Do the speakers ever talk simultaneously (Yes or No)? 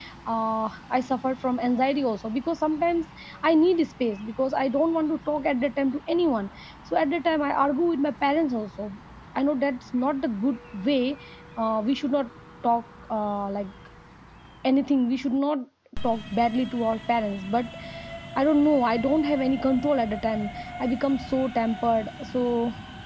No